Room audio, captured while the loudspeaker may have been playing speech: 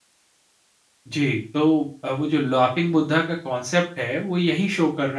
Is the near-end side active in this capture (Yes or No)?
Yes